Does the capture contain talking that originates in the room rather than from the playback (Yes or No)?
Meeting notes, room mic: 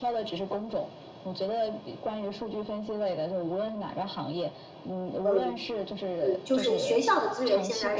Yes